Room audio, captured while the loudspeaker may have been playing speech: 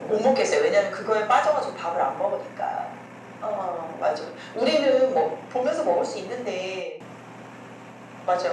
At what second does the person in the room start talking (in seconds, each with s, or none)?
none